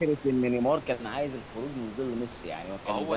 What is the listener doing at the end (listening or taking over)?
taking over